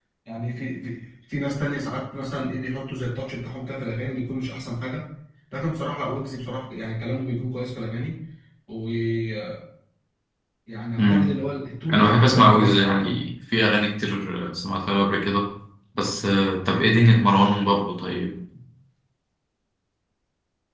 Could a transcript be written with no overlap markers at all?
No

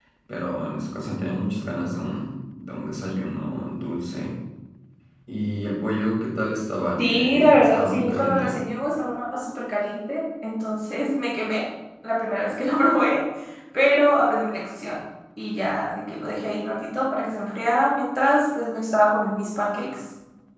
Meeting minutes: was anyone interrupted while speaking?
Yes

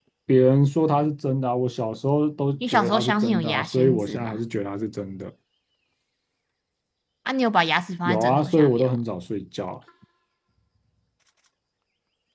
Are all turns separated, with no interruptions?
No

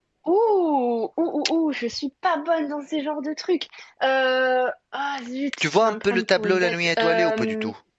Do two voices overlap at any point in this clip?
Yes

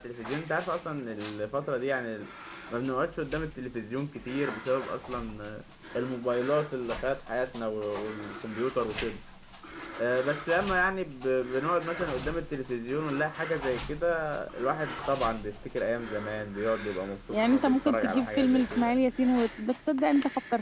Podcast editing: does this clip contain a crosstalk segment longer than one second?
Yes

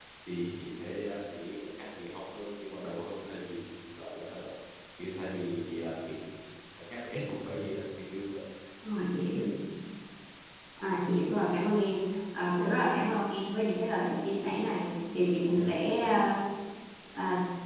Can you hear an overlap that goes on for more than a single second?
No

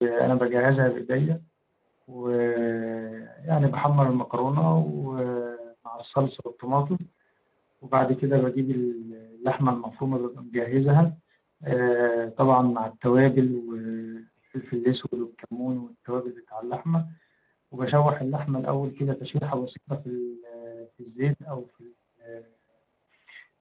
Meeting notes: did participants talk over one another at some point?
No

